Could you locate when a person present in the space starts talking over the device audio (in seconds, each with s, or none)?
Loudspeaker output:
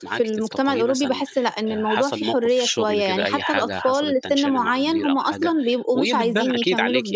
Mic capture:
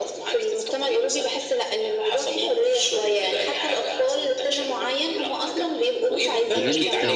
6.2 s